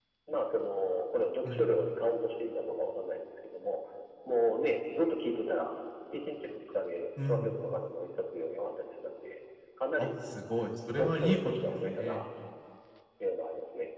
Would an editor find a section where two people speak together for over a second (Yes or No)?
Yes